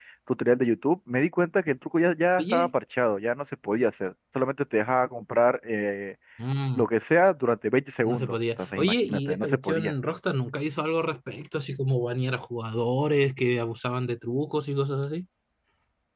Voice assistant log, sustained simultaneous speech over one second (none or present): present